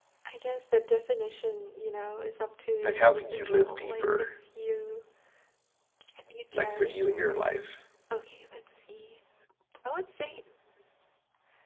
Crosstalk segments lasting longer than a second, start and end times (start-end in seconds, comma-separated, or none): 2.8-4.2